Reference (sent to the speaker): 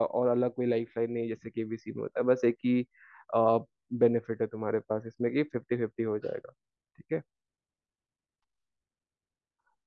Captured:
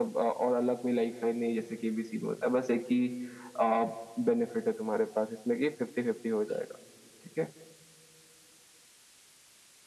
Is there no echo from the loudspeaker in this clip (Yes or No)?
No